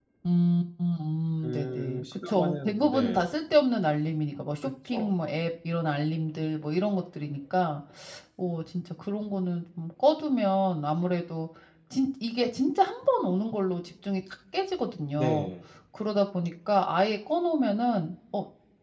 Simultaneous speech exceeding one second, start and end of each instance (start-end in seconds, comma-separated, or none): 1.4-3.3